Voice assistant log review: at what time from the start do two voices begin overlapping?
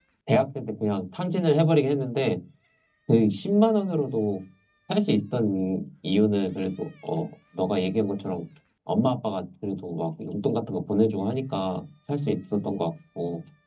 none

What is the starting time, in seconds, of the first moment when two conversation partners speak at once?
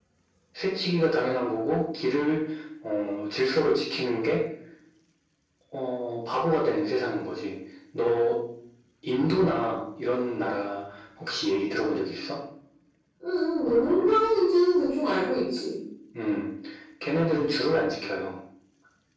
none

